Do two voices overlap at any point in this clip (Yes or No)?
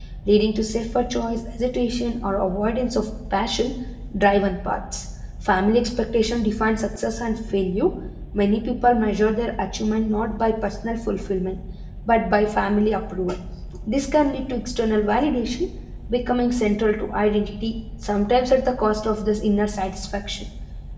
No